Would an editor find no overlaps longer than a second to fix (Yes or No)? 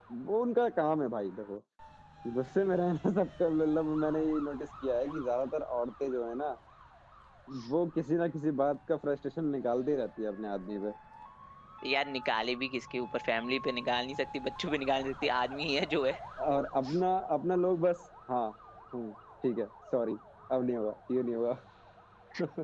Yes